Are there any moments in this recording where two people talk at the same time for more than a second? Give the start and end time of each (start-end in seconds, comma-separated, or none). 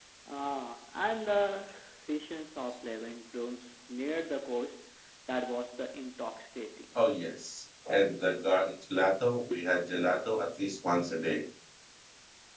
none